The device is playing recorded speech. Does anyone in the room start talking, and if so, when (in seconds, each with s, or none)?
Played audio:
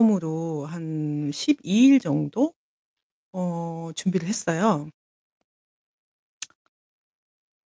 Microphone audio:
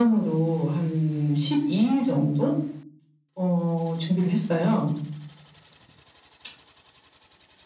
none